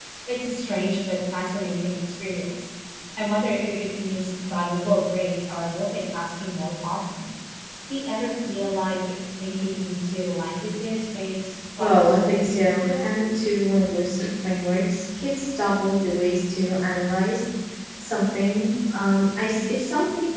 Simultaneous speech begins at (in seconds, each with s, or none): 11.8 s